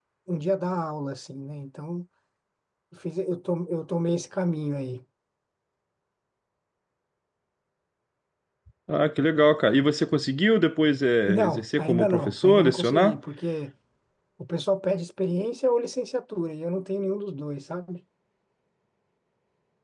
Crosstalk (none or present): present